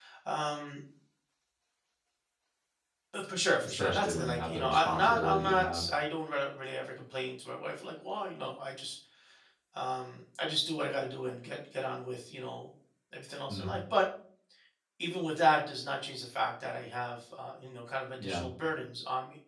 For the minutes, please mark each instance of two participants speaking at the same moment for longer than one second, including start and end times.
3.6-5.8

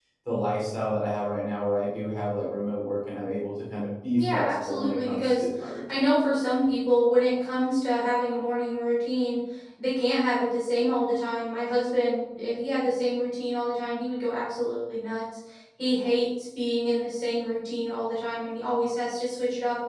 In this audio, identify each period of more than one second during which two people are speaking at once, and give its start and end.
4.2-5.4

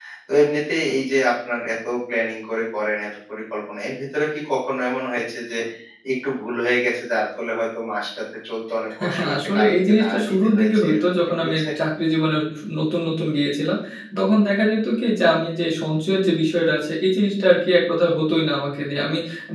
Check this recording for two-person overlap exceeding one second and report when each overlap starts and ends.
9.2-11.7

